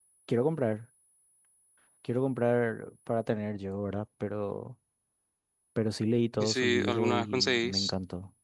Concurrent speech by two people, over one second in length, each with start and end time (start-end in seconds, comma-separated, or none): 6.4-7.9